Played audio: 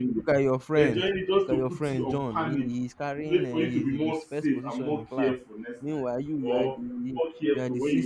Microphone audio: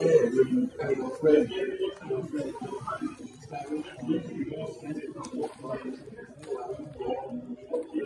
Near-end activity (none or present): none